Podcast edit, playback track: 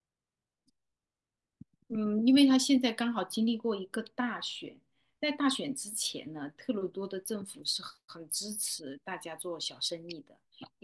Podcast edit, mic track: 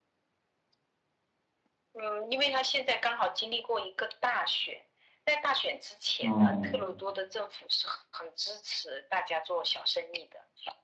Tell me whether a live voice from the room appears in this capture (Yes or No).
Yes